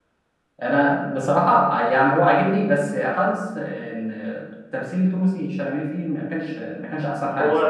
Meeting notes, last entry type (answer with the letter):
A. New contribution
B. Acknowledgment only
A